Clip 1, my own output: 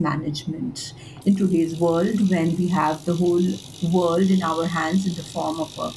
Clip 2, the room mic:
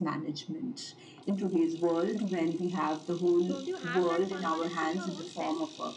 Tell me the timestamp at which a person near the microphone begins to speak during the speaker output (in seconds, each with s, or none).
3.5 s